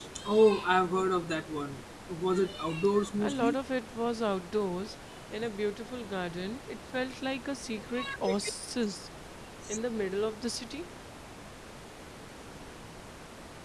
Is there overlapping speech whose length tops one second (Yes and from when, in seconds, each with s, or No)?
No